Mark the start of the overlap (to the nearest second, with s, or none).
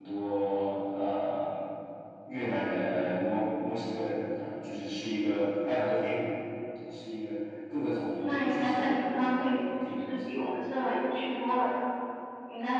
8 s